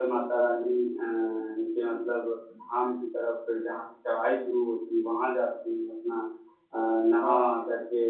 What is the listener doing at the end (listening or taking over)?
listening